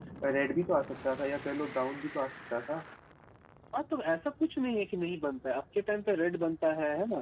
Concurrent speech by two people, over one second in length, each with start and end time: none

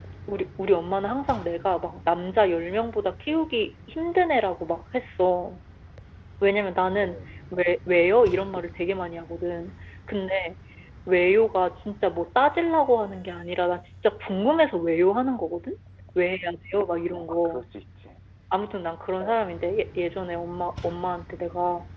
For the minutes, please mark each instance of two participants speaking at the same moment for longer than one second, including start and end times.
none

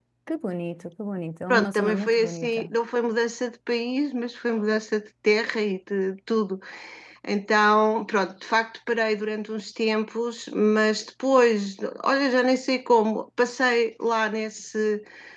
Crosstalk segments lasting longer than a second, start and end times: 1.5-2.7

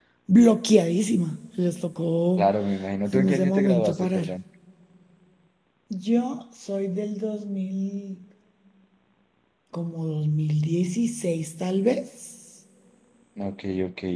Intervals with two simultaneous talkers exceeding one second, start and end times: 3.1-4.3

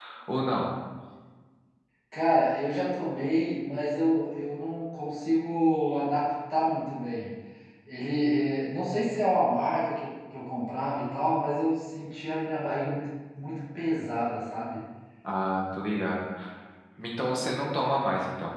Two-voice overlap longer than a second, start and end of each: none

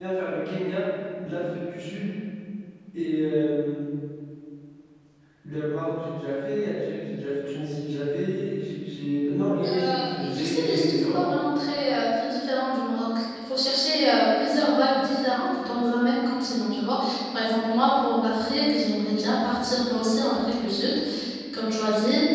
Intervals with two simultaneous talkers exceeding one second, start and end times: 9.6-11.2

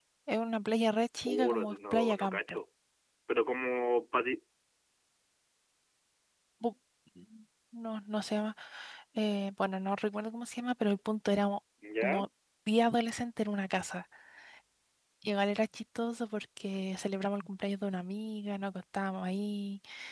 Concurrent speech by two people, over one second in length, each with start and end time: 1.3-2.6

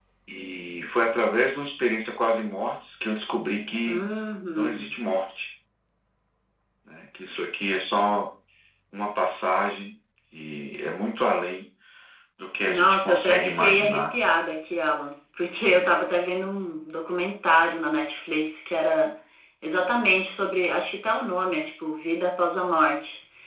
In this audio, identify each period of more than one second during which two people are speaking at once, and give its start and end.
12.7-14.0

